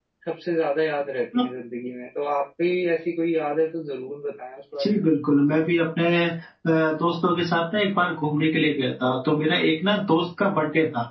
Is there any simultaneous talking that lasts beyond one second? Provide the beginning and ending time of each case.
none

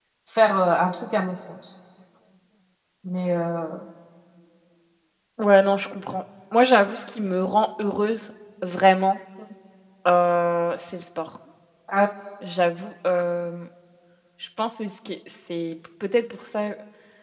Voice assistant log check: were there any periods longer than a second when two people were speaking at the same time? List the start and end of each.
none

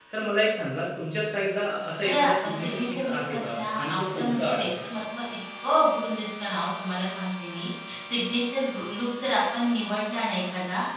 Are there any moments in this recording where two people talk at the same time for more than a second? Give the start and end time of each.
2.0-4.7

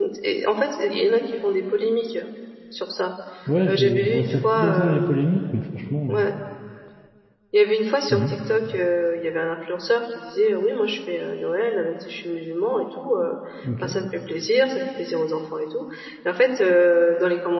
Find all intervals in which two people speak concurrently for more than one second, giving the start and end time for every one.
3.7-5.2

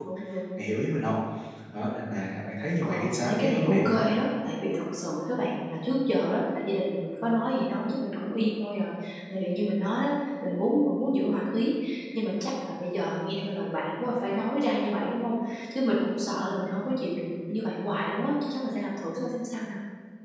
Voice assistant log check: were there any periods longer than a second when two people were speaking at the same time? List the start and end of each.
2.8-4.1

